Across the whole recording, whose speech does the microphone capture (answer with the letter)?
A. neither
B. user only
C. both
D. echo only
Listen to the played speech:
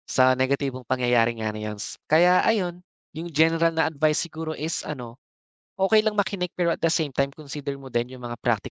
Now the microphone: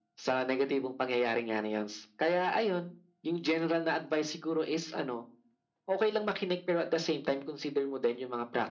D